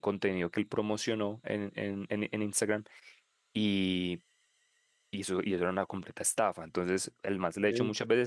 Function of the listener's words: listening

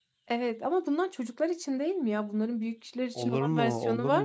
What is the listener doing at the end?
taking over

